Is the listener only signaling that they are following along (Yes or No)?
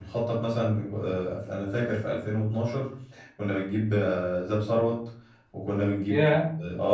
Yes